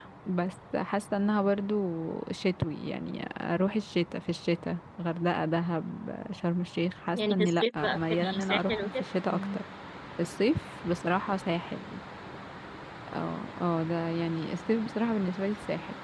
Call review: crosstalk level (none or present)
present